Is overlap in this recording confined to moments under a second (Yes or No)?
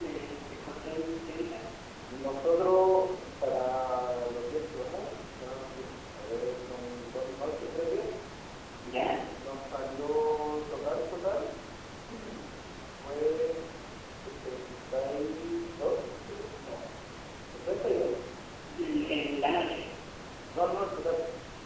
Yes